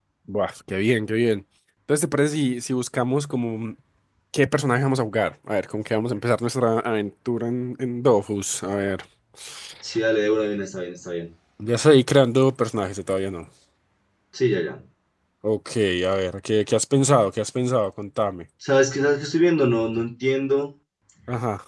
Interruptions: none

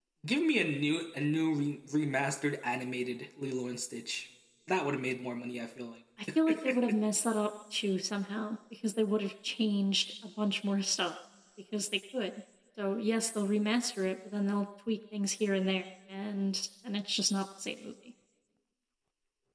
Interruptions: none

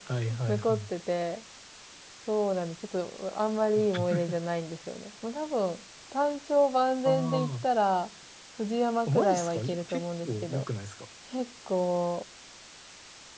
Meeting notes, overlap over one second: present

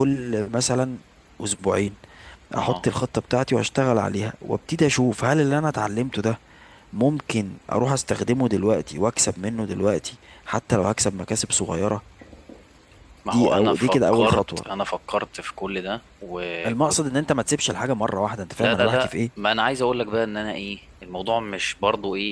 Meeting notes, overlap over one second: present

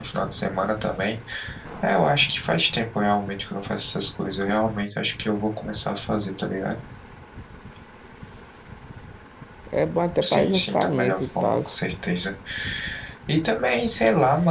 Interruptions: present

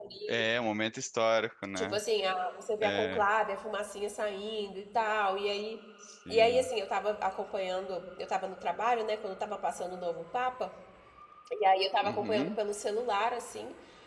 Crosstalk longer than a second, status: none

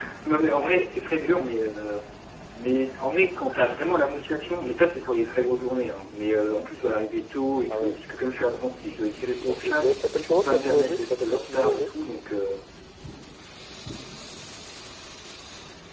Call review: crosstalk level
present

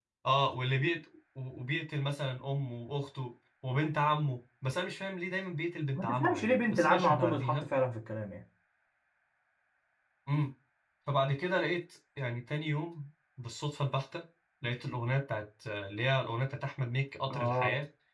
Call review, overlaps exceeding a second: present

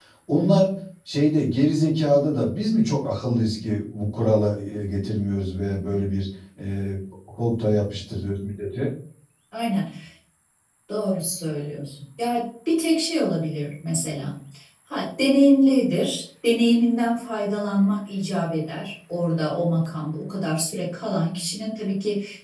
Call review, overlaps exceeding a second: none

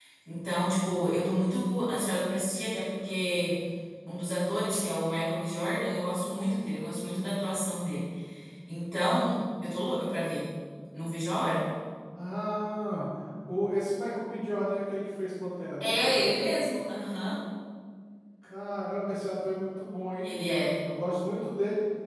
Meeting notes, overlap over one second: none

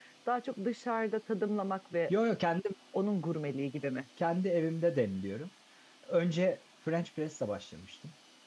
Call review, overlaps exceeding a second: none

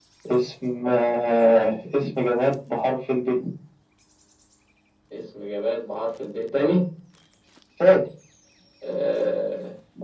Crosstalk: none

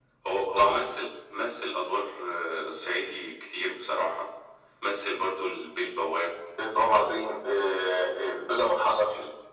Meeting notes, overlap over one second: none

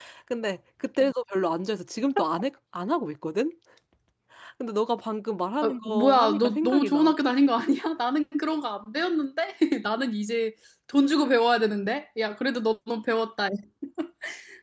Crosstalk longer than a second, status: present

